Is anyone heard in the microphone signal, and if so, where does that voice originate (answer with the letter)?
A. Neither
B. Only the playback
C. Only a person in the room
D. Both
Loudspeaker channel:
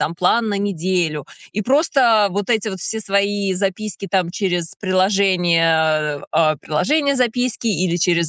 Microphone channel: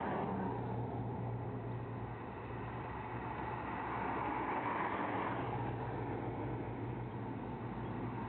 A